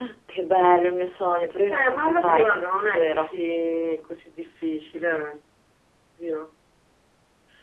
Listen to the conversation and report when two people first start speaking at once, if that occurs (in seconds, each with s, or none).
1.7 s